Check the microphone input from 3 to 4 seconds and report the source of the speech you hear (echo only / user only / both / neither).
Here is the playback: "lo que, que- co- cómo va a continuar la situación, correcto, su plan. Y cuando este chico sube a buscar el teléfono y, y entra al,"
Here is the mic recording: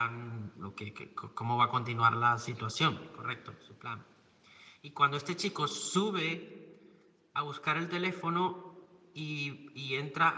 echo only